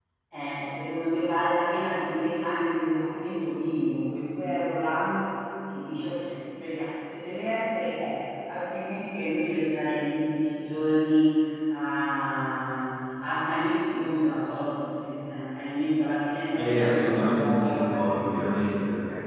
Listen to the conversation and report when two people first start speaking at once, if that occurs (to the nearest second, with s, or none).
17 s